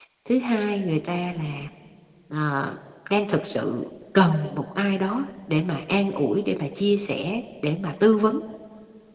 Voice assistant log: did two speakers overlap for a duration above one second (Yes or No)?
No